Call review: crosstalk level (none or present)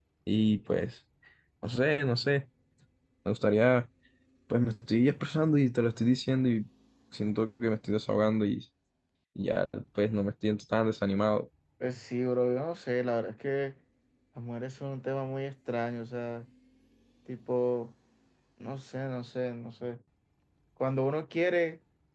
none